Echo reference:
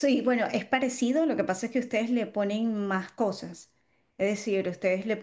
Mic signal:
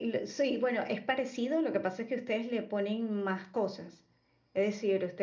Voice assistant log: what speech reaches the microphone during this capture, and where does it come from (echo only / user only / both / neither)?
echo only